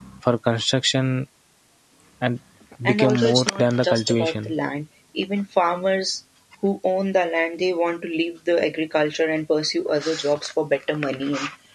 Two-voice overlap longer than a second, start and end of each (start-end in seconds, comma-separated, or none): 2.9-4.5